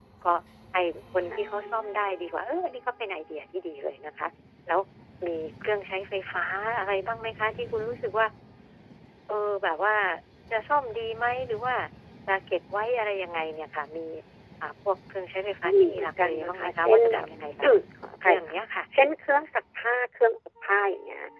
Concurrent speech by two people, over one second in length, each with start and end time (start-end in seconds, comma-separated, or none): 15.7-17.3